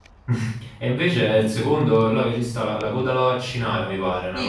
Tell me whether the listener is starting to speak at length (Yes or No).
Yes